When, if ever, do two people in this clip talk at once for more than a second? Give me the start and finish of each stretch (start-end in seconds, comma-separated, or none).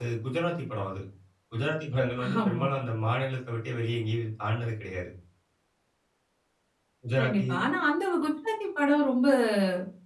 none